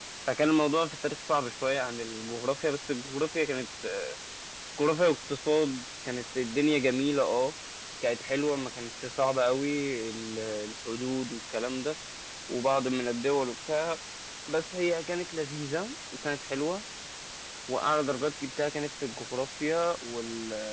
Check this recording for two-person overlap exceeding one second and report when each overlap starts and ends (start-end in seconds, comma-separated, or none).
none